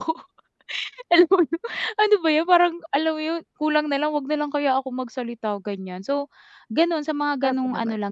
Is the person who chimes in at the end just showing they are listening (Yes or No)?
Yes